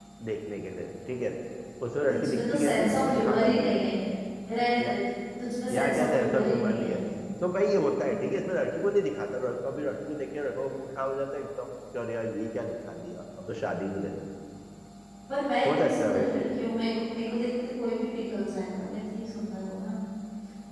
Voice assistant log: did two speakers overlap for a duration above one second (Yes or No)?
Yes